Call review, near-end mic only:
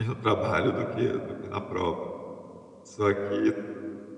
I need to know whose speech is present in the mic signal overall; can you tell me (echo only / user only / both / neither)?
user only